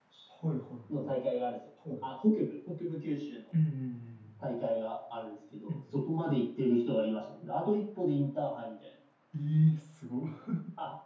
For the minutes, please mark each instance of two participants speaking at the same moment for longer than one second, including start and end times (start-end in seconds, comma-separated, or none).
none